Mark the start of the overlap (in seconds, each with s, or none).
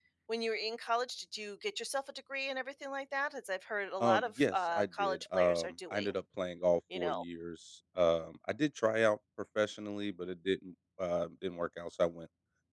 4.0 s